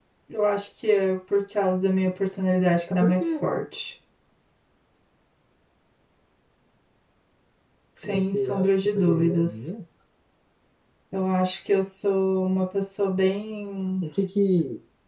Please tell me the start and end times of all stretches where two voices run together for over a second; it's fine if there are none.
8.0-9.7

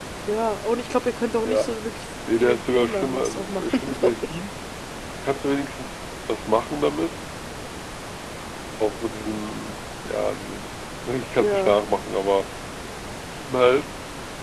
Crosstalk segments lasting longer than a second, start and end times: 2.4-4.2

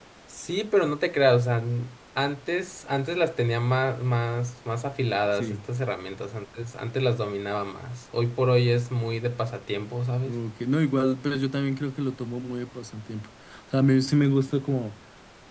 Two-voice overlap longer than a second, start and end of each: none

